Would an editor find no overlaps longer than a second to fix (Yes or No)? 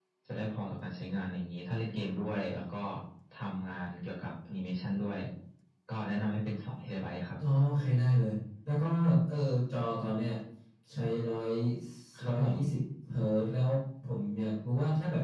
Yes